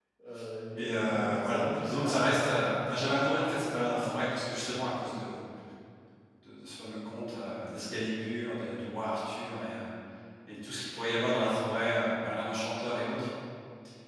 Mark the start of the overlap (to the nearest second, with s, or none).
1 s